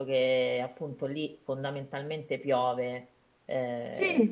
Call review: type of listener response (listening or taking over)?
taking over